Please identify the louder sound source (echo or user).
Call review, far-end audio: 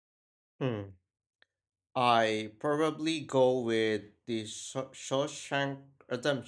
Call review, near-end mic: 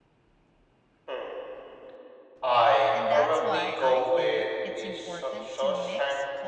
echo